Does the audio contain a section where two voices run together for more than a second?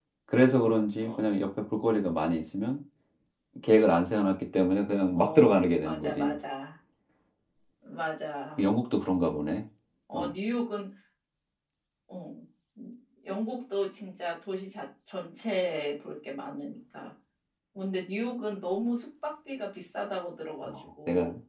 Yes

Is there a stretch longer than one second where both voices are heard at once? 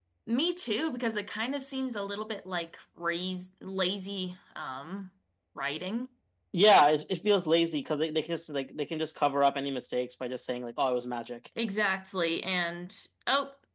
No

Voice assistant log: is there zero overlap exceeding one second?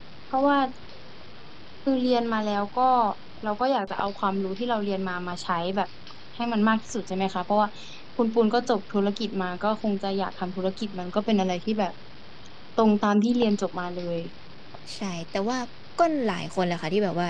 Yes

